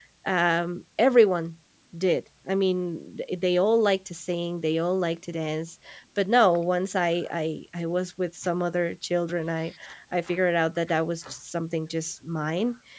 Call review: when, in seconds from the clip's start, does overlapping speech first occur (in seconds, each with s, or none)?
none